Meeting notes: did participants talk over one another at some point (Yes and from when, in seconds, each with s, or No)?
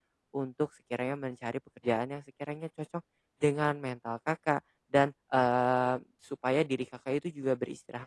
No